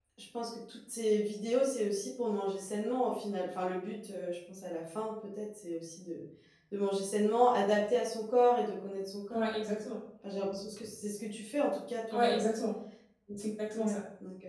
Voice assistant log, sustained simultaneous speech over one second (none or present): none